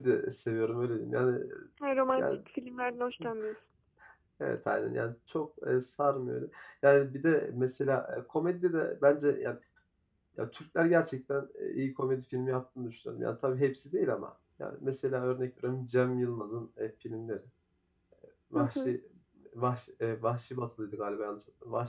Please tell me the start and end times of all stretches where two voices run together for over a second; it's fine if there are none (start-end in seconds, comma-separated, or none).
none